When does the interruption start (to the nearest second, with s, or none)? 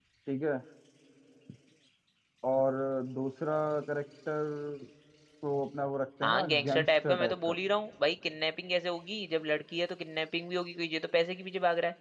6 s